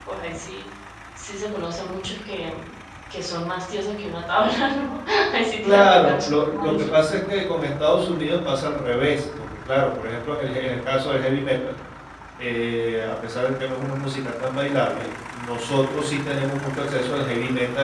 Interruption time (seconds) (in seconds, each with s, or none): 5.6 s